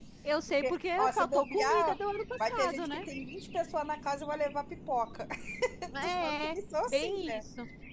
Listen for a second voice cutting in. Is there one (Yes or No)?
Yes